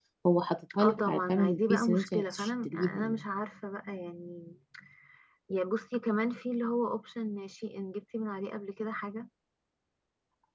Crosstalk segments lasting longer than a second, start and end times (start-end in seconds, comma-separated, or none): 0.8-3.2